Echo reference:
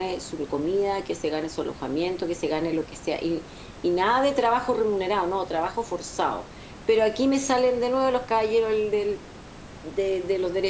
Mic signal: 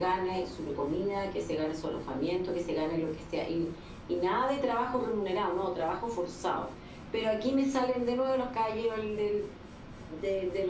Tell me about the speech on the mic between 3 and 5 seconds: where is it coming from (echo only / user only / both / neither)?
echo only